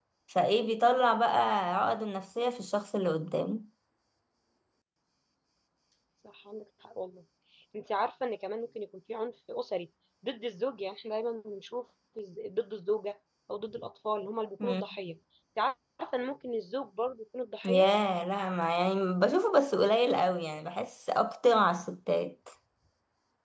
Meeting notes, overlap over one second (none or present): none